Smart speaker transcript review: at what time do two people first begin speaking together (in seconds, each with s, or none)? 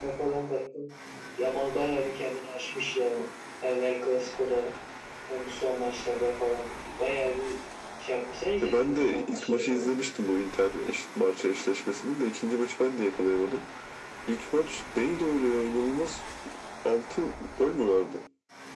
8.6 s